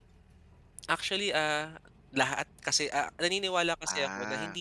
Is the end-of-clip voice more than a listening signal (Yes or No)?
No